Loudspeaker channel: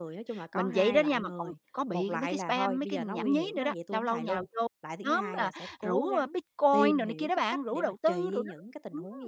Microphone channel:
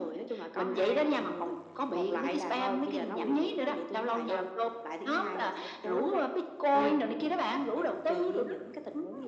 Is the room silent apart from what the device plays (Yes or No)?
Yes